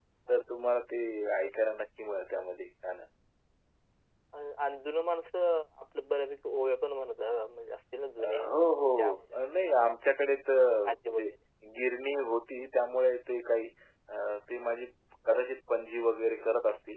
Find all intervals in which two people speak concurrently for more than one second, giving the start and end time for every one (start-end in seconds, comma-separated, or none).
8.2-9.4